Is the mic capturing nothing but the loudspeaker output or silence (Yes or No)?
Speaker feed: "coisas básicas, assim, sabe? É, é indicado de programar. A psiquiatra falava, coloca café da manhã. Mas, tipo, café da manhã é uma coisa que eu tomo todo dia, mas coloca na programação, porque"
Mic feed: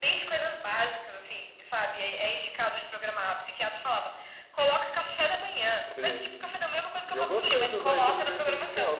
No